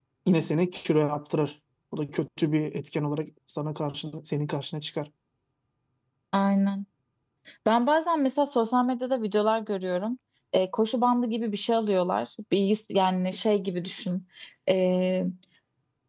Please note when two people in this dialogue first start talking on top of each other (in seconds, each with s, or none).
none